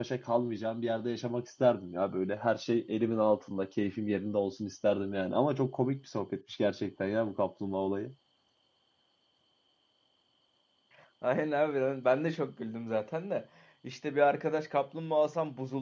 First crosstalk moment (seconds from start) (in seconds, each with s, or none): none